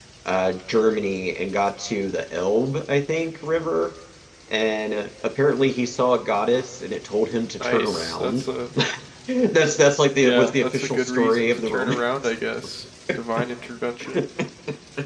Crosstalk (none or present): present